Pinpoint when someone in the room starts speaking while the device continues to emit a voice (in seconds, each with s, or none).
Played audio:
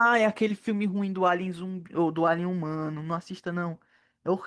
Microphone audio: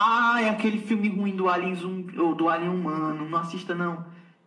none